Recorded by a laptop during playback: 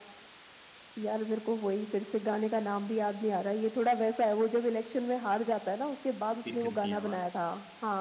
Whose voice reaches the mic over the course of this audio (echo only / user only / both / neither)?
both